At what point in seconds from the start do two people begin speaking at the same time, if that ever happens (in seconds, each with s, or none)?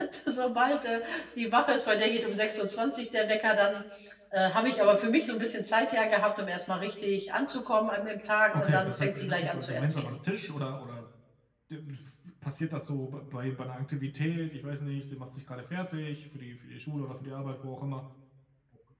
8.5 s